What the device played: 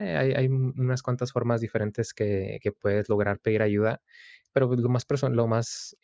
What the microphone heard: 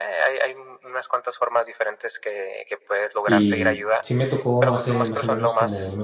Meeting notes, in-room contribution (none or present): present